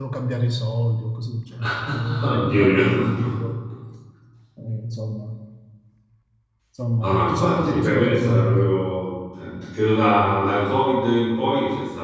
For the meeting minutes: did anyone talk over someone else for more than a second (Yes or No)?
Yes